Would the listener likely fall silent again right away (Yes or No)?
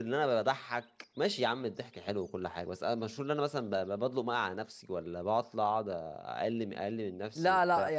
No